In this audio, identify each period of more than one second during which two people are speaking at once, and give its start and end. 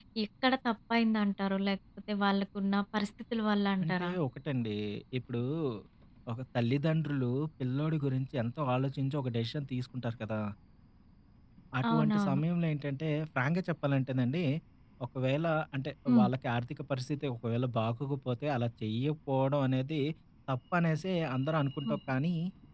none

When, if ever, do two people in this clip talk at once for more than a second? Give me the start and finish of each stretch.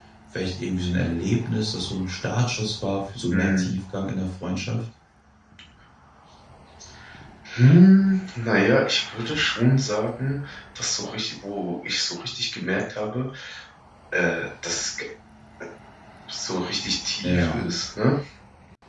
none

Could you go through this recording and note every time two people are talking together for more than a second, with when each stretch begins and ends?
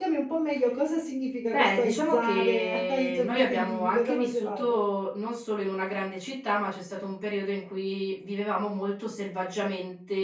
1.5-4.8

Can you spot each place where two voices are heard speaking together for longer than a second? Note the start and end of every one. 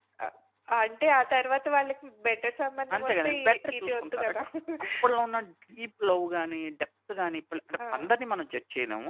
3.0-4.4

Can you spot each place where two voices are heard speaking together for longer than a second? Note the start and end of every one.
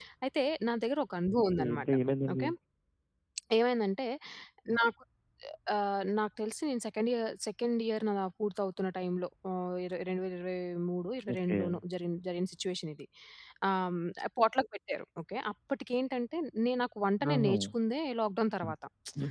none

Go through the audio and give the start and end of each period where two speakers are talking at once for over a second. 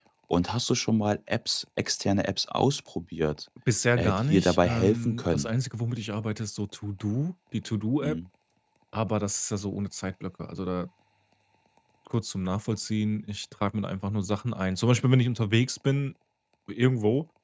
4.0-5.5

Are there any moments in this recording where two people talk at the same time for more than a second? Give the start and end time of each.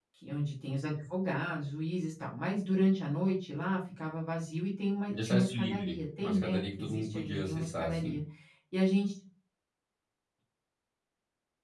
5.1-8.2

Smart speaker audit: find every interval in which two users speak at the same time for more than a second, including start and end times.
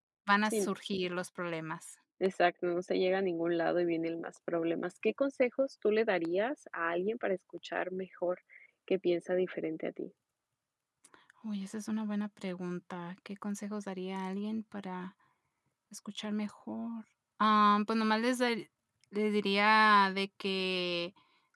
none

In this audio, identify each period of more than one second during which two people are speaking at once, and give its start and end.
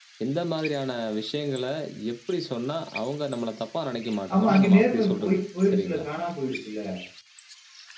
4.3-6.1

